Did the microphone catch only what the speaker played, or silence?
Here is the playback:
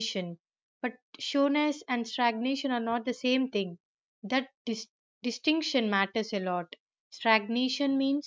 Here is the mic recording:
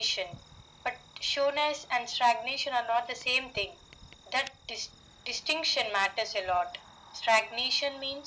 Yes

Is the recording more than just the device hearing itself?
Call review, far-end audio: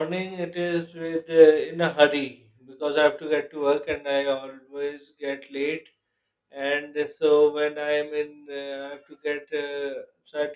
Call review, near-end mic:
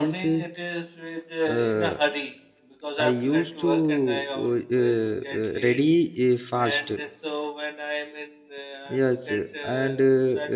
Yes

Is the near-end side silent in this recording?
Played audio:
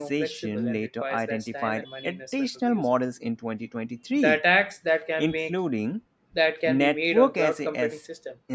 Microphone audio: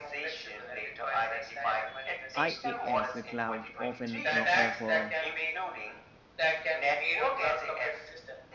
No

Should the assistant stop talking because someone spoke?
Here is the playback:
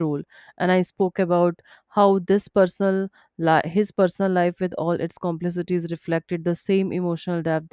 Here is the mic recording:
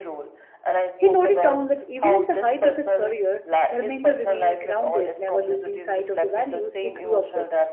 Yes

